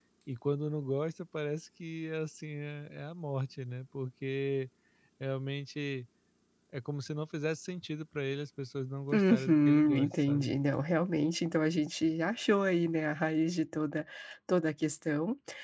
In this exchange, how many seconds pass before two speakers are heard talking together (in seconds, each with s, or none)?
9.1 s